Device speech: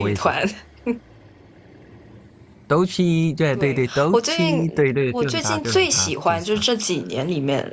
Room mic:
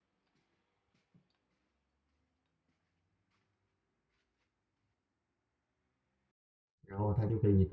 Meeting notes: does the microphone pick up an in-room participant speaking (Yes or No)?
Yes